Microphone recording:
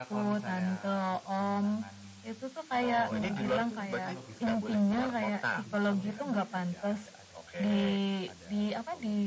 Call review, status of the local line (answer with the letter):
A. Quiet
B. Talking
B